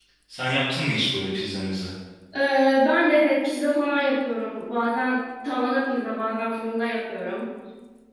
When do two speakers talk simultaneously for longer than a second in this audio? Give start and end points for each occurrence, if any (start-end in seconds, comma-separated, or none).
none